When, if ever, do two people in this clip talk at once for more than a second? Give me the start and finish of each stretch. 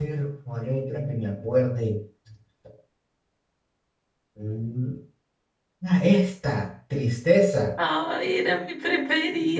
none

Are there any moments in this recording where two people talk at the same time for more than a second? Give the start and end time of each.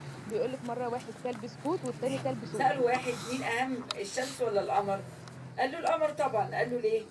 none

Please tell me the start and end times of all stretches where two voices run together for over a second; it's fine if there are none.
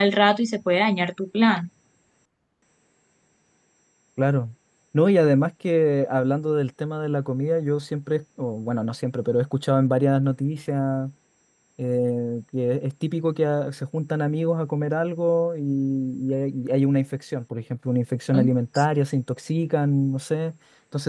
none

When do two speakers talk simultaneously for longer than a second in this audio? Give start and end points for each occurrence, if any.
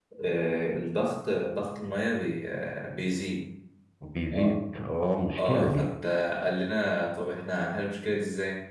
none

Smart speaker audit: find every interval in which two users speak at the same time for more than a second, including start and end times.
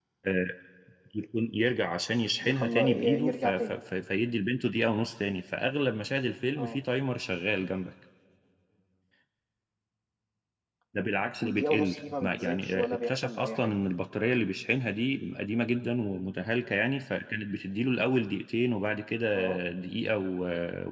2.4-3.8, 11.4-13.8

